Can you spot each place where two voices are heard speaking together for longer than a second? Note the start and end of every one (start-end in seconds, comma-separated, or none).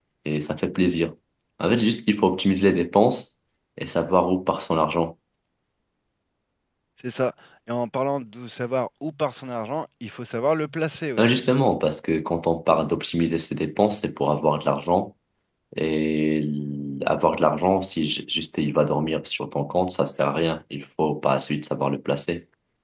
none